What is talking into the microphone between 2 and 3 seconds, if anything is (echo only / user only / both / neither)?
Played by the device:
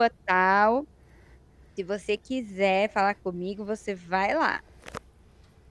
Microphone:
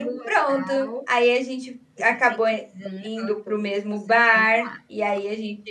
both